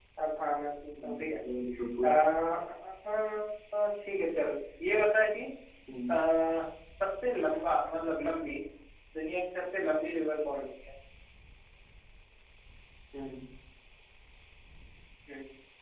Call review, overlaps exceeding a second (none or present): none